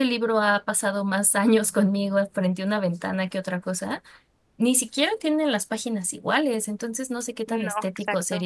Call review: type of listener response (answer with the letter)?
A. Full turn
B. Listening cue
B